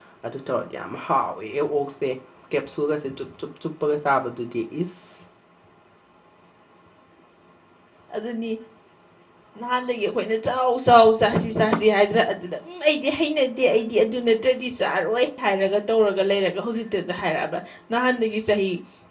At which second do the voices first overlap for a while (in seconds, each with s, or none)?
none